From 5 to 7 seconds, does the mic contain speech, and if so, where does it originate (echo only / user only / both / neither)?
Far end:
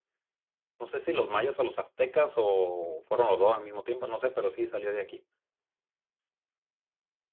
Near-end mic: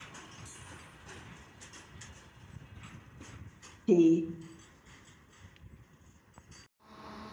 neither